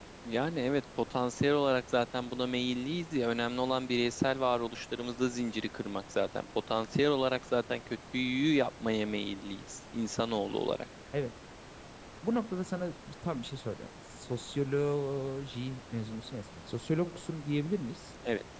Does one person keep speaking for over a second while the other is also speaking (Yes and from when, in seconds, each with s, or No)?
No